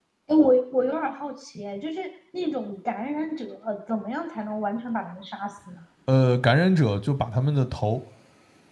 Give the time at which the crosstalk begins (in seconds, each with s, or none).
none